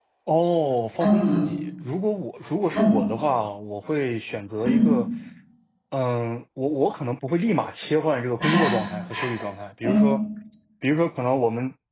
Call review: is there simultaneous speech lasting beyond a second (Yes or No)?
No